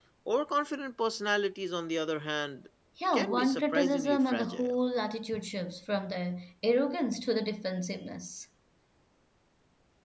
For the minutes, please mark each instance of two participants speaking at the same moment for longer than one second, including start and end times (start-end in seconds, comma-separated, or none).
3.1-4.8